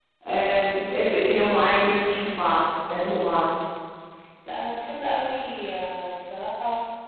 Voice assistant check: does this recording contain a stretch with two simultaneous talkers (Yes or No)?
No